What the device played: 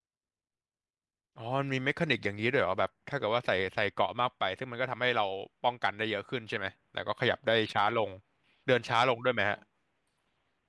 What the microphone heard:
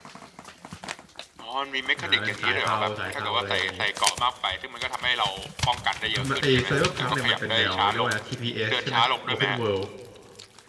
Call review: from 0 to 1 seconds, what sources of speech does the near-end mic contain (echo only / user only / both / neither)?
neither